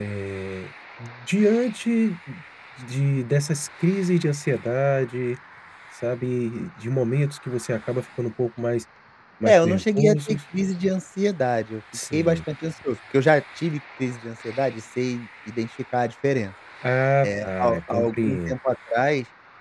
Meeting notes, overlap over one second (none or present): present